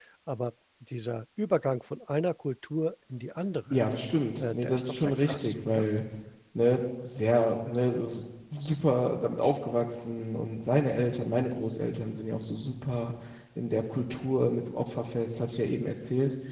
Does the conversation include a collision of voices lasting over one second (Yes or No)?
Yes